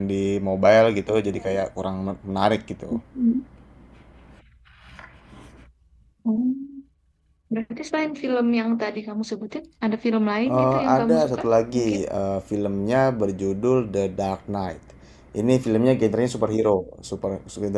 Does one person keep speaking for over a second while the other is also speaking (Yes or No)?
Yes